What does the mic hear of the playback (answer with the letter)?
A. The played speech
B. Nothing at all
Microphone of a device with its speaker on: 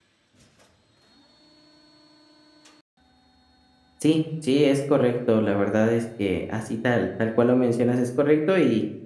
B